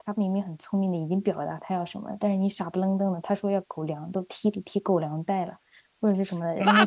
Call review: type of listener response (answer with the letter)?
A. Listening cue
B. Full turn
B